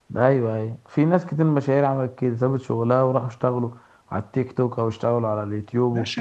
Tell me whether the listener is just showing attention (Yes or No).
No